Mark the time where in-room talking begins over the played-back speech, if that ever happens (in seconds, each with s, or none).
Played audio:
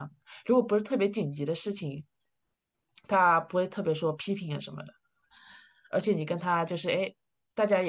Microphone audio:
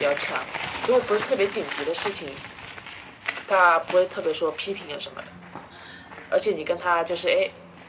none